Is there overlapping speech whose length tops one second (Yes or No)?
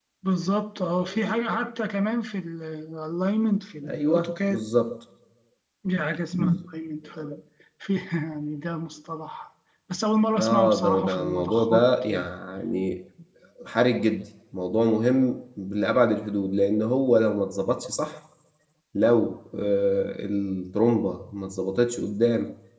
Yes